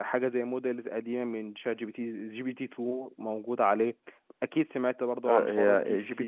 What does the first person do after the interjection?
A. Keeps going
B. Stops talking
B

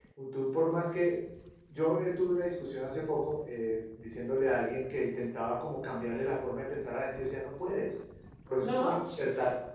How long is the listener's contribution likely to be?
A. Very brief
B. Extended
A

